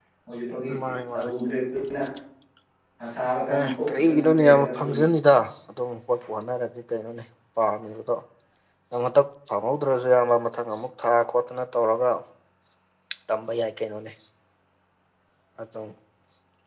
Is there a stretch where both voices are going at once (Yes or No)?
Yes